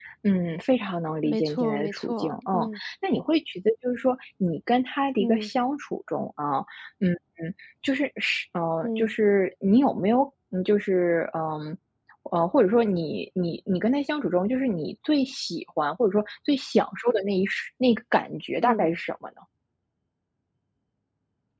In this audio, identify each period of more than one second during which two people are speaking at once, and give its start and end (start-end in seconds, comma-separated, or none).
1.2-2.7